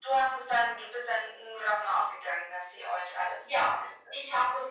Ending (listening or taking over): taking over